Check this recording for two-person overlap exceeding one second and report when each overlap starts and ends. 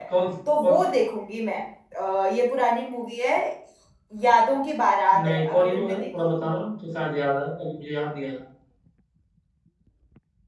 5.1-6.6

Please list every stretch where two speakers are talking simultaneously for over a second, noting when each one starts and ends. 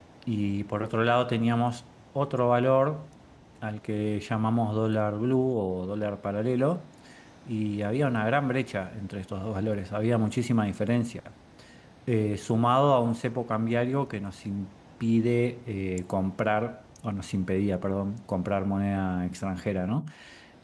none

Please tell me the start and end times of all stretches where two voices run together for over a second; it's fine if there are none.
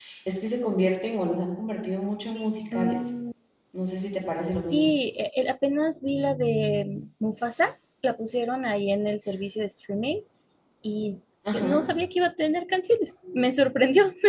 none

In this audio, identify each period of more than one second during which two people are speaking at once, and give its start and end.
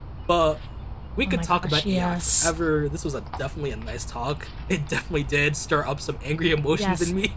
1.2-2.5

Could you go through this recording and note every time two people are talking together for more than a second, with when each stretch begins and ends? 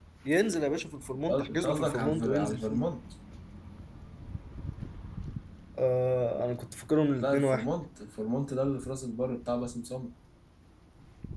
1.3-2.8

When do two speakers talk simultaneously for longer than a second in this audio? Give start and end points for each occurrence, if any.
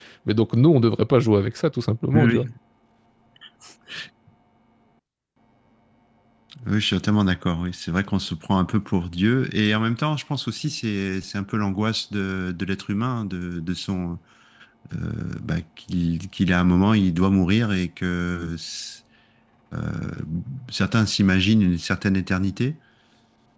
none

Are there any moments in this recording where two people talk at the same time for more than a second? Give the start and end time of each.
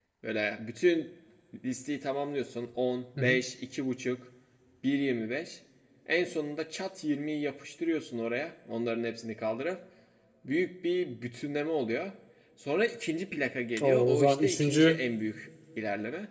13.8-15.0

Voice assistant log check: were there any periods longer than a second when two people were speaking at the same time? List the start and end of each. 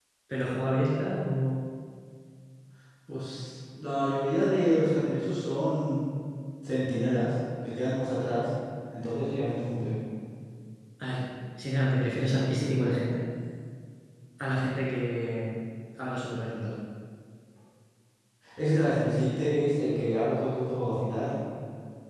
none

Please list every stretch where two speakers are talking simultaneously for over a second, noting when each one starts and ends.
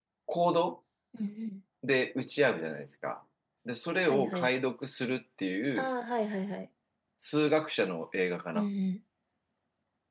none

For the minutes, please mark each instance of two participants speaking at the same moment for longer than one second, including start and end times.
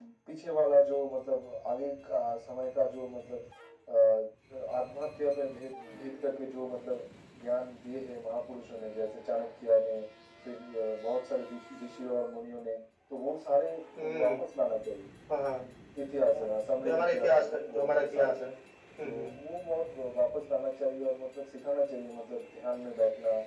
16.8-18.4

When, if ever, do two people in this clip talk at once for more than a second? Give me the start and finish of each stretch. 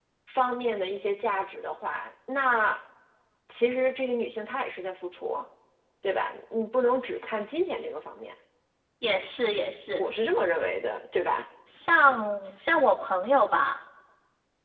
none

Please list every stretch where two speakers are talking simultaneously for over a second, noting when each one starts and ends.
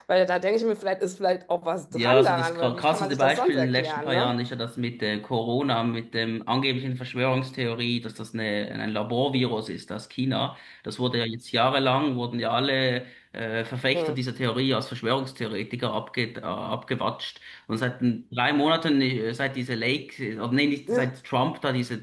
1.9-4.3

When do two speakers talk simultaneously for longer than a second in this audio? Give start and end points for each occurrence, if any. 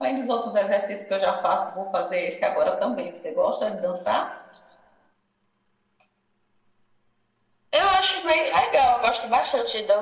none

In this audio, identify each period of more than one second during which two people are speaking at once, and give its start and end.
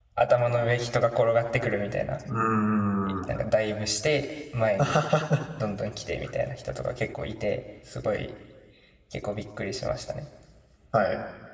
none

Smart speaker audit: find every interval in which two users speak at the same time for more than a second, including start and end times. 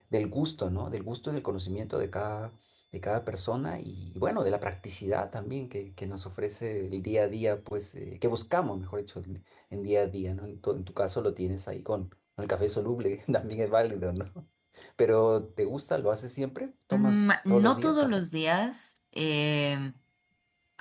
16.9-18.2

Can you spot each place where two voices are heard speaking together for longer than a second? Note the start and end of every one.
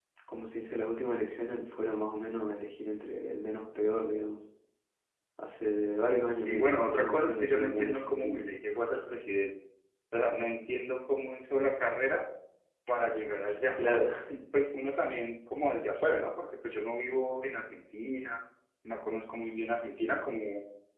6.4-8.4

